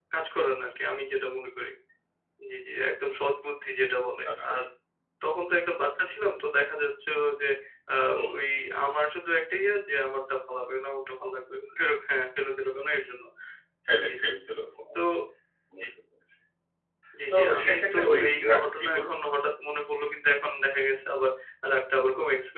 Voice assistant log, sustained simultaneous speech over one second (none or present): present